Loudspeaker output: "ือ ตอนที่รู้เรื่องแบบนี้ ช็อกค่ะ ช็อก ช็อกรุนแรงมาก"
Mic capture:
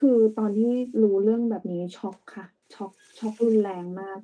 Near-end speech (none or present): none